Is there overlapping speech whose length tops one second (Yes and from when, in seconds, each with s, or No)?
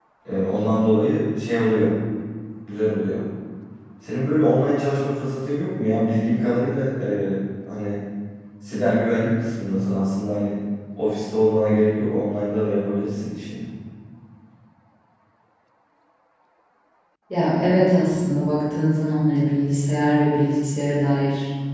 No